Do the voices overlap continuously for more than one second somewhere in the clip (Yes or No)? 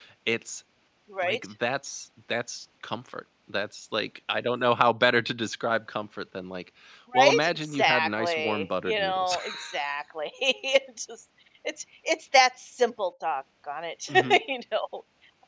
Yes